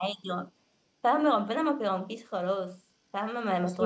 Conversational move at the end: taking over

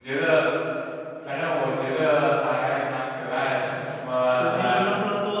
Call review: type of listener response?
taking over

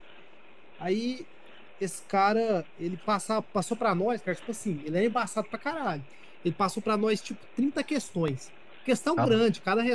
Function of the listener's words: listening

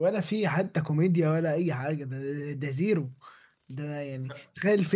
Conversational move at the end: listening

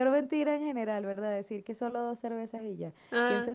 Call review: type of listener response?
listening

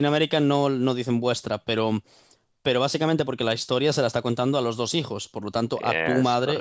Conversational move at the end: listening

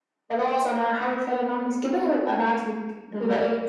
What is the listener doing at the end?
taking over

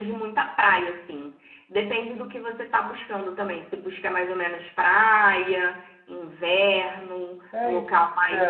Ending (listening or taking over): taking over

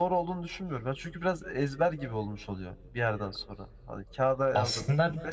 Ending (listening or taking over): listening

